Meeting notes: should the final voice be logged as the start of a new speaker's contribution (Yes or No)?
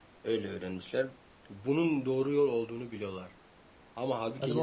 No